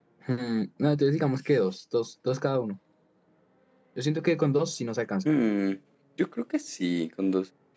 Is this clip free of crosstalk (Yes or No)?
Yes